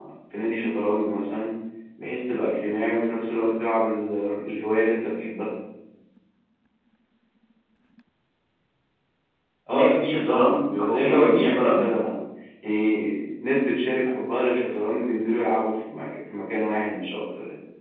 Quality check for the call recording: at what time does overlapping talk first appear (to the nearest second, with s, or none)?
10 s